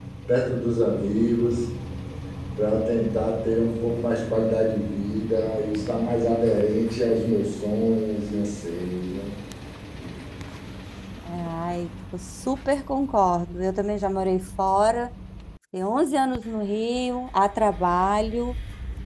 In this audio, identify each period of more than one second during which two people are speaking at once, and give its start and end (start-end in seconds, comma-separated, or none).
none